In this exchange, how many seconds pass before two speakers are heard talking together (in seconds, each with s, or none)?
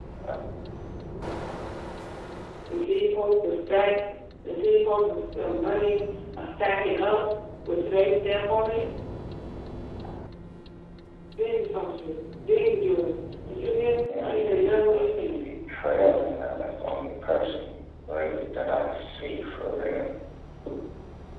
14.1 s